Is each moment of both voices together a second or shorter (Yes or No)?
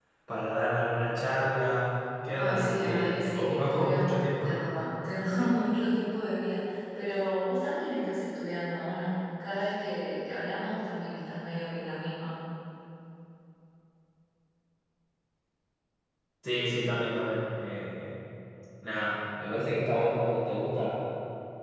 No